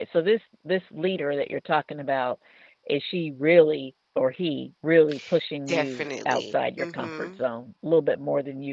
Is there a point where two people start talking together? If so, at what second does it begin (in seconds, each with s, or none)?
5.7 s